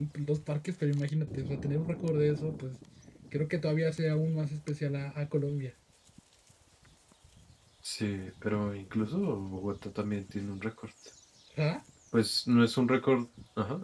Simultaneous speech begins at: none

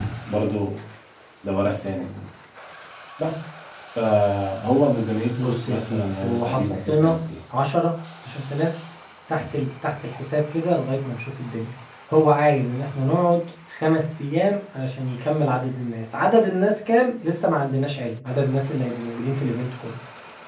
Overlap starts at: 5.4 s

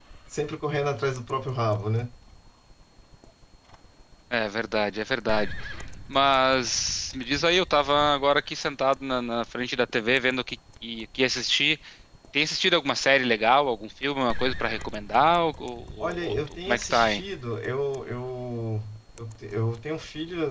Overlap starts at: 16.0 s

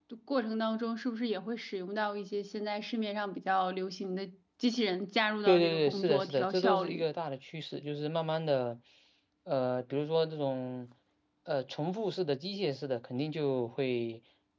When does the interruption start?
5.5 s

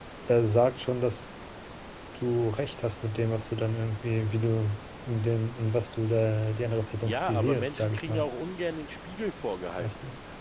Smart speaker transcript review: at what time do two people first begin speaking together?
7.0 s

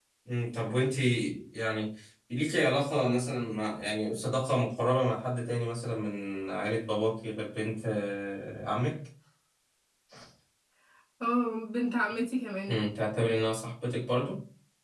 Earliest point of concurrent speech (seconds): none

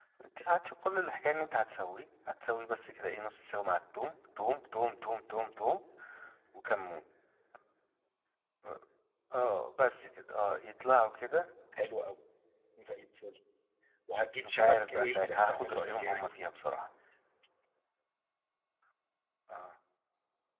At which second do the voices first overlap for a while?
14.4 s

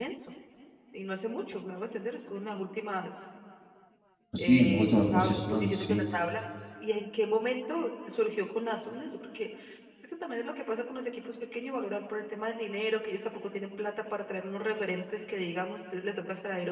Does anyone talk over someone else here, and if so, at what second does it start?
4.4 s

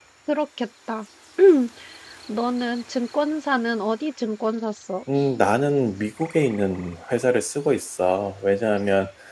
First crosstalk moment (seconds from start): none

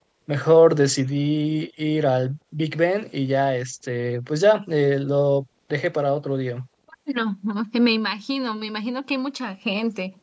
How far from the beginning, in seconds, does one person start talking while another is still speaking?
none

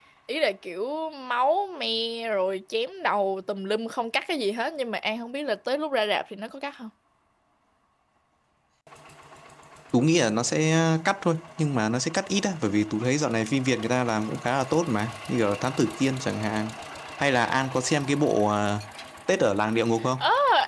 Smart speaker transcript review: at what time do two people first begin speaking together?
none

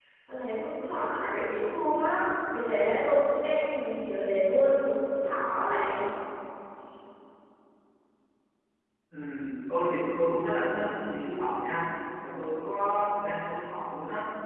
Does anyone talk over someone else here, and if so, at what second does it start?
none

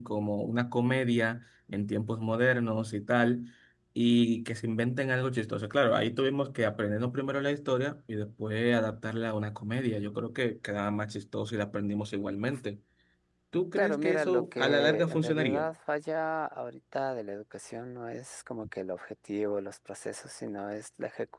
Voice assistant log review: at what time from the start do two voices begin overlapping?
13.8 s

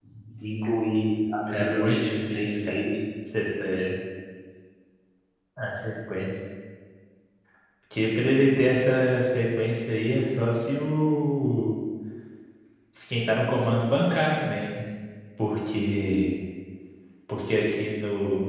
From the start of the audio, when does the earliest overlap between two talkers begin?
1.5 s

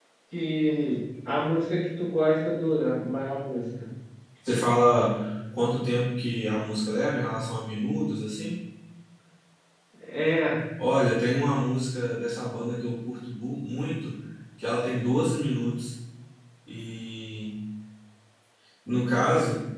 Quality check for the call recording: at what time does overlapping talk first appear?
none

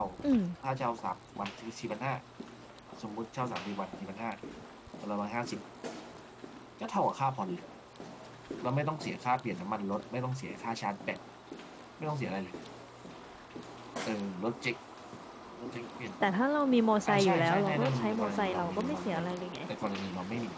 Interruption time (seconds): 17.1 s

